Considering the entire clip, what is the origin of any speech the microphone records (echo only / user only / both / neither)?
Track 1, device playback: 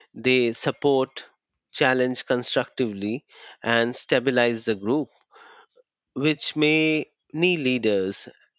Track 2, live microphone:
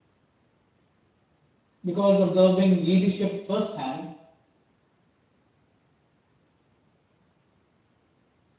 user only